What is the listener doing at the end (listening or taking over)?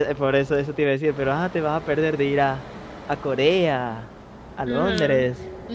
taking over